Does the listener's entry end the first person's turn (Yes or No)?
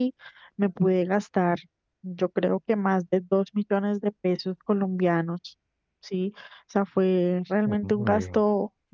No